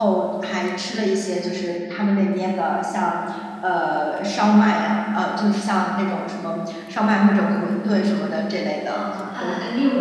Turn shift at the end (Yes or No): Yes